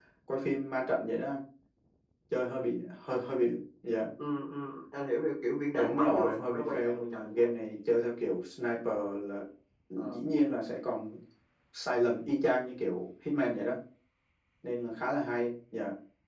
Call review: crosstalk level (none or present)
present